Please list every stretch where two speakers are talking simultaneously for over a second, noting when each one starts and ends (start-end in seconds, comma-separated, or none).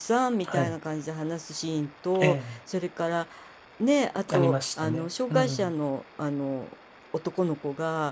4.4-5.7